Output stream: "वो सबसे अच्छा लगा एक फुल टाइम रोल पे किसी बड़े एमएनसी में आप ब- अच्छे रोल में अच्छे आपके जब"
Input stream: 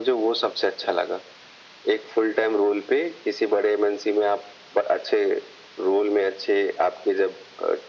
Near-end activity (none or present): none